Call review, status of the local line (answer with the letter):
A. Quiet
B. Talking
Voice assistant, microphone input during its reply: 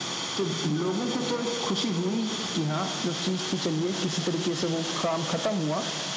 A